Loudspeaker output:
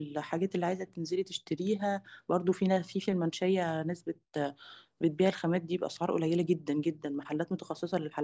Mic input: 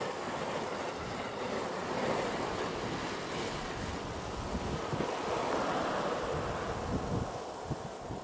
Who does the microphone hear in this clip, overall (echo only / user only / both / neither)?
neither